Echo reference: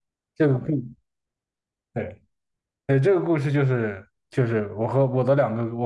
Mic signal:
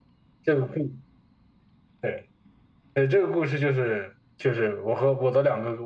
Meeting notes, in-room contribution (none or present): none